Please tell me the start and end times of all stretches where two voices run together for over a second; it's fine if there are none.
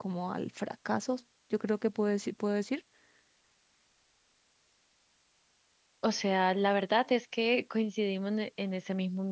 none

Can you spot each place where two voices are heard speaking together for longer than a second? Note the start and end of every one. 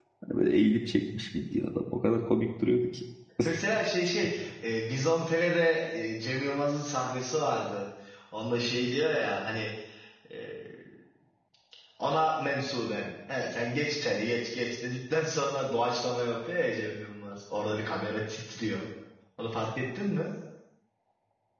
none

